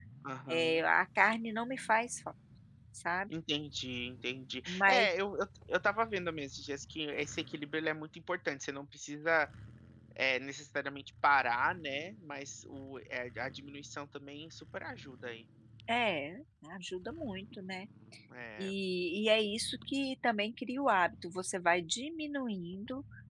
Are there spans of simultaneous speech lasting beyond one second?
No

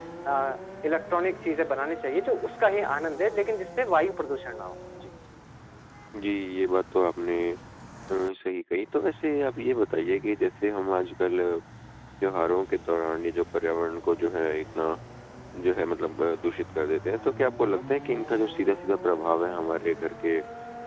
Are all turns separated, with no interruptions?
Yes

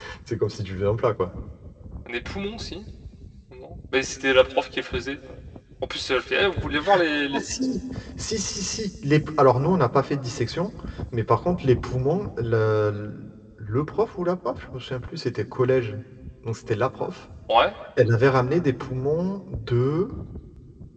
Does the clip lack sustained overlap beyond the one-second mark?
Yes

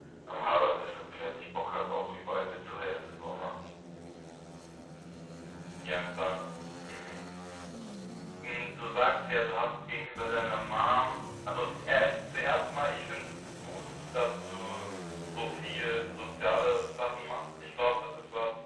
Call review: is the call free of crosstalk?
Yes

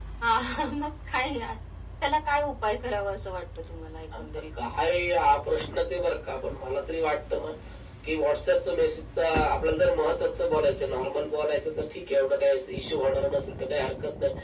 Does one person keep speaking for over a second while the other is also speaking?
No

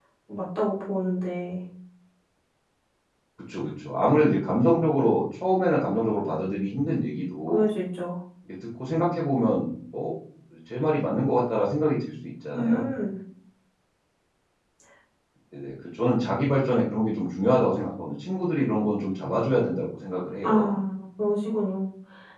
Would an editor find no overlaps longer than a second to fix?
Yes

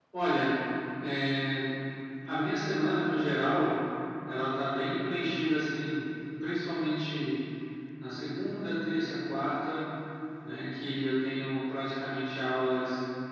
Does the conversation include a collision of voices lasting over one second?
No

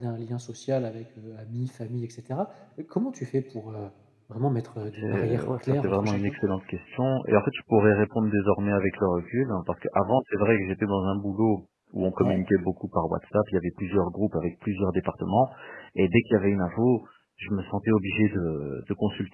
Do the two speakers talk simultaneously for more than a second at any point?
Yes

